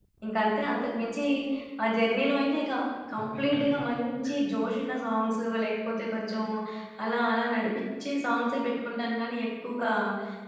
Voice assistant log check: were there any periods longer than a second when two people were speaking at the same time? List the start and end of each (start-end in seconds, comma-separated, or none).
none